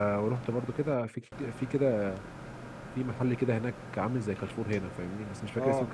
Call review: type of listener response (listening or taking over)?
listening